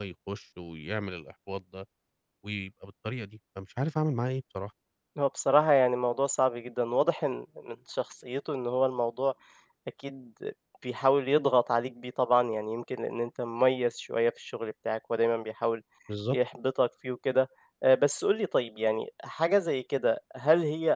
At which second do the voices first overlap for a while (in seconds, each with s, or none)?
none